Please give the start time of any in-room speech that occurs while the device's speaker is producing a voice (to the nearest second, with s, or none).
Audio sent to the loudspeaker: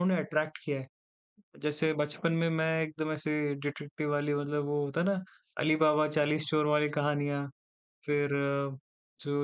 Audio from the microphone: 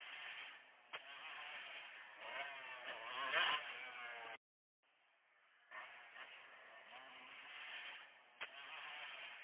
none